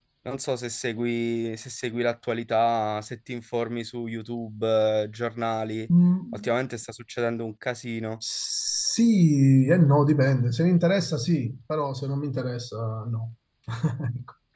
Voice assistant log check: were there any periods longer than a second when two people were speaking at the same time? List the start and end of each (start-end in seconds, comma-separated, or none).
none